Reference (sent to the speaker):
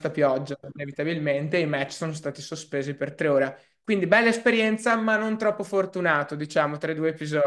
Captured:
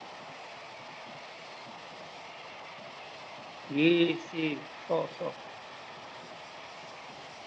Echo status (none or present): none